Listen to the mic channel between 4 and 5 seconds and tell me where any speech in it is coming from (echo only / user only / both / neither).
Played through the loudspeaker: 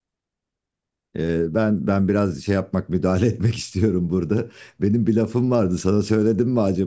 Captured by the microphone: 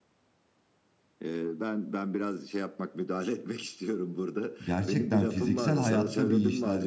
both